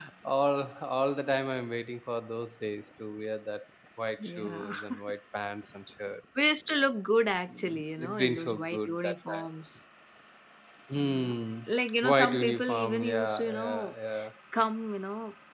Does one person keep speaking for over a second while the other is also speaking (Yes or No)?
Yes